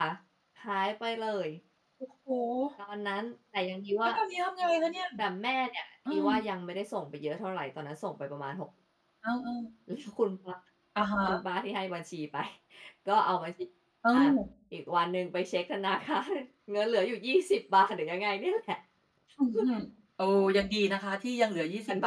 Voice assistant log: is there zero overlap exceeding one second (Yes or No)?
Yes